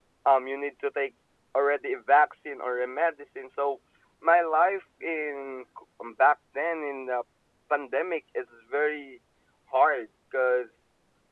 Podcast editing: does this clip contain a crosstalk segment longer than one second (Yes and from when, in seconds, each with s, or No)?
No